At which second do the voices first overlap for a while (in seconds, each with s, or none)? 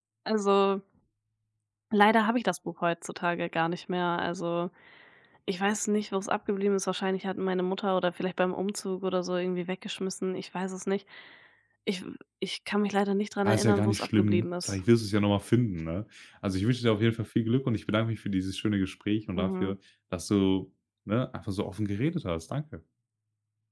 13.4 s